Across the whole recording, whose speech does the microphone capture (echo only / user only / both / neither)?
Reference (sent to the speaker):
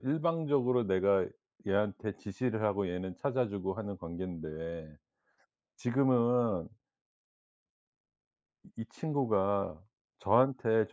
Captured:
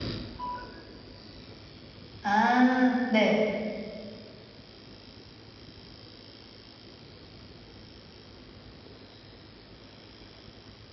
user only